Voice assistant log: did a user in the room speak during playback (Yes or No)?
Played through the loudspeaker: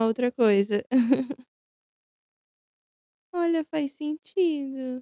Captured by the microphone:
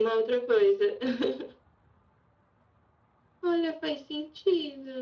No